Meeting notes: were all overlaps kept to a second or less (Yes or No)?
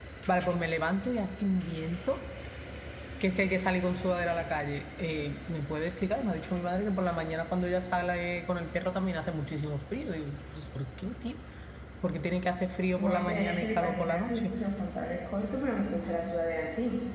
No